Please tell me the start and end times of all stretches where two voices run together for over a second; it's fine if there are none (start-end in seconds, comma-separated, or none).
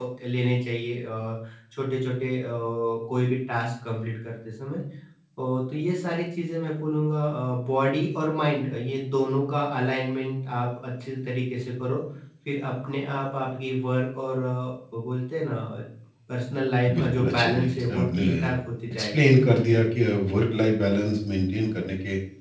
16.9-18.2